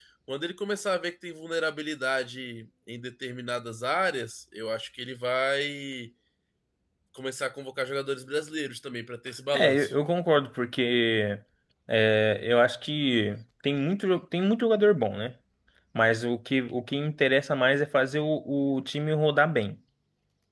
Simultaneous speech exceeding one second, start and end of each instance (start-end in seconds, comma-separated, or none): none